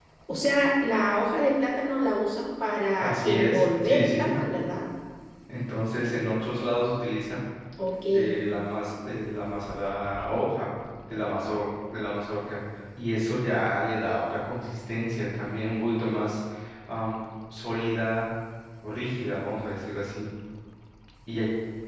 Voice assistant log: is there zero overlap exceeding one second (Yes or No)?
No